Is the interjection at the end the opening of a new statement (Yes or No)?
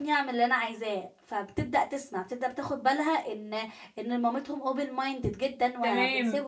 Yes